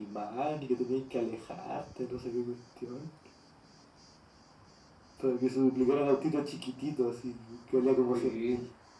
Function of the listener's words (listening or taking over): taking over